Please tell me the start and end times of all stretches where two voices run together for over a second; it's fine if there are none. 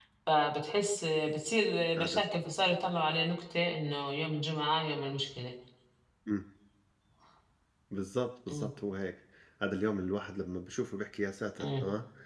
none

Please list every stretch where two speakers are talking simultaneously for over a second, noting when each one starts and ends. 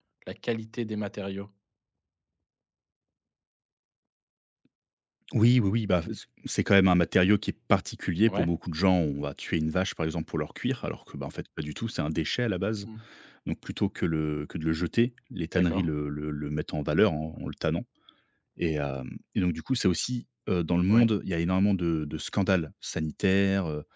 none

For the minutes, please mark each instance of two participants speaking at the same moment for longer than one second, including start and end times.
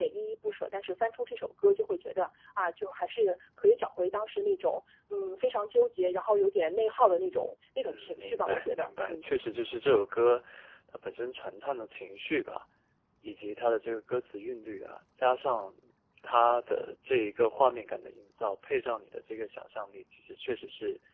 7.8-9.2

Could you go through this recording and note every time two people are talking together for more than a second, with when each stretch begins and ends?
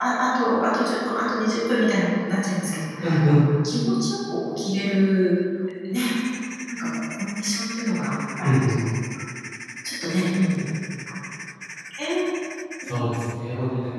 none

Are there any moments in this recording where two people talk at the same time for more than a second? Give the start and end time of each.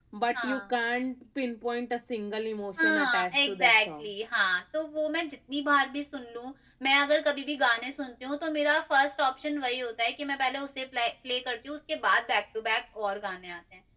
2.8-4.1

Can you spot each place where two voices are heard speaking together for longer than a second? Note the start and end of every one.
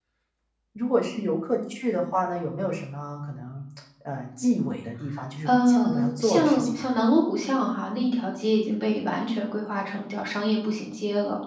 5.4-6.8

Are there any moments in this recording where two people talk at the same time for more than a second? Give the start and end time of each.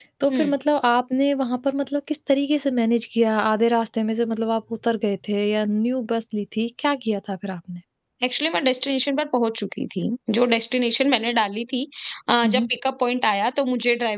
none

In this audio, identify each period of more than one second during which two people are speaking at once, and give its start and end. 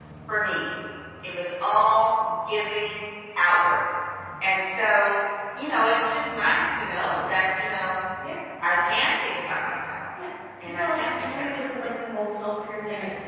10.7-11.9

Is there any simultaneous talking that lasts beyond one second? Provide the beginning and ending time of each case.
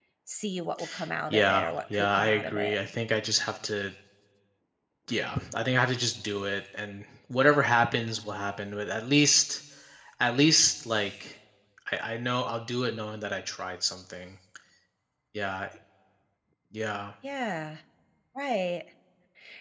1.3-2.7

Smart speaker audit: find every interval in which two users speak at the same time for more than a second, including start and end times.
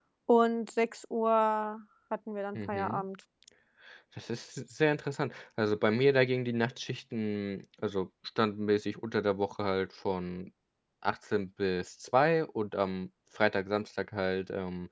none

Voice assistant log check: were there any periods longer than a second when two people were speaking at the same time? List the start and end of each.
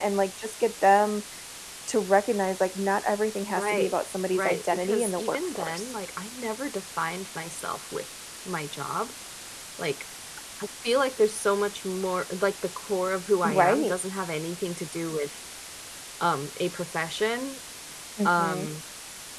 4.3-5.9

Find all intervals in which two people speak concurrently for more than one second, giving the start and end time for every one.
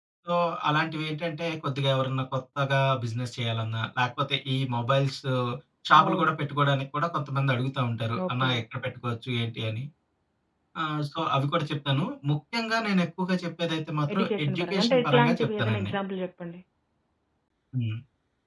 14.1-15.9

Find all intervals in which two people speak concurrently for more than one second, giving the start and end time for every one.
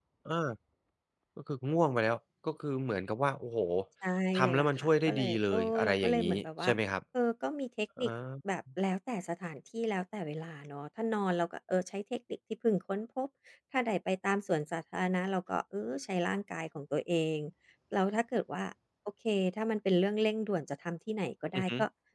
4.3-6.7

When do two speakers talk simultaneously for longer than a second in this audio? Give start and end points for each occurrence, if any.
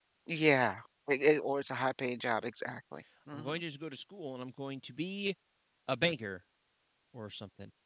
none

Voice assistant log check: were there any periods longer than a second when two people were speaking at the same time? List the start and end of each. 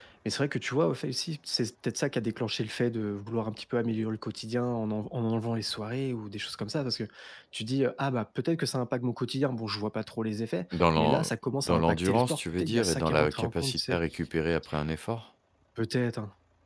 11.6-14.0

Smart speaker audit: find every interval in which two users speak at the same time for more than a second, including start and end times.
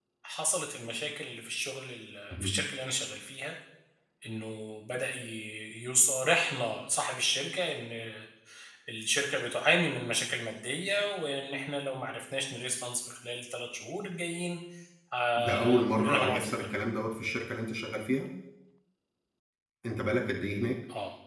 15.4-16.7

